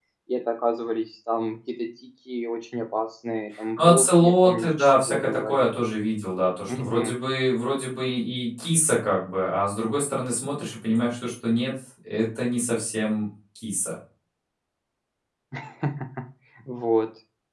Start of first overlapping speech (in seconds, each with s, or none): 3.8 s